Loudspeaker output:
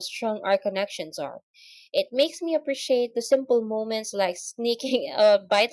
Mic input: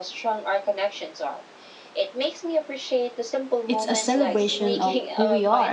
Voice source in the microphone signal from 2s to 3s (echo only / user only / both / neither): echo only